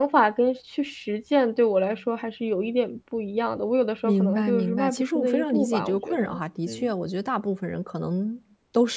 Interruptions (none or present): present